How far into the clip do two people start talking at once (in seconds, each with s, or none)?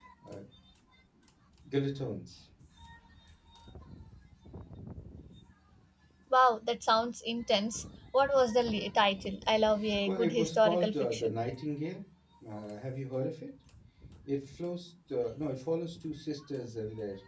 9.8 s